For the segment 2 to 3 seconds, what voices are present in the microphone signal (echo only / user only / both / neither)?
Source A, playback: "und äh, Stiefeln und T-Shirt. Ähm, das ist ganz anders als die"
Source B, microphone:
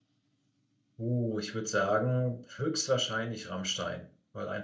user only